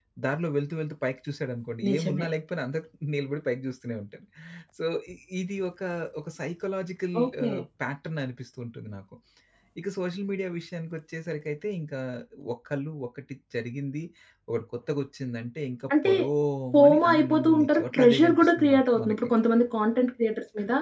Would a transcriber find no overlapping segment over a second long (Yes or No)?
No